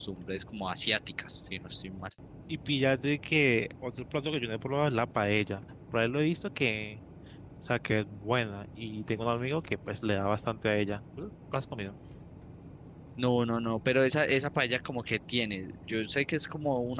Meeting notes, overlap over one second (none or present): none